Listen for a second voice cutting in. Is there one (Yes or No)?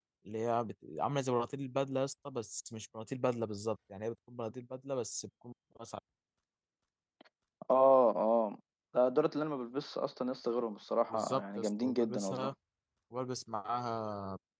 Yes